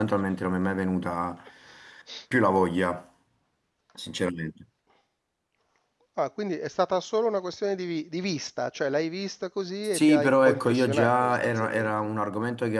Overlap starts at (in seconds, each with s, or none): 9.9 s